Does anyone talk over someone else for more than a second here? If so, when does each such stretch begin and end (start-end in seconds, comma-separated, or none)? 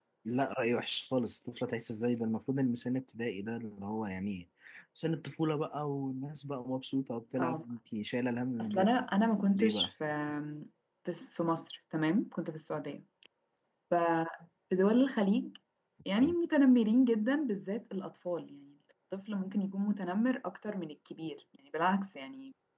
none